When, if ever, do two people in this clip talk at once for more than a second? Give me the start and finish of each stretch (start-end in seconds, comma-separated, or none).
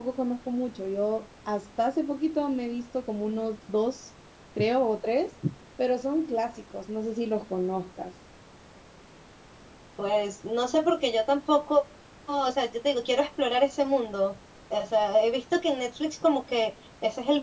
none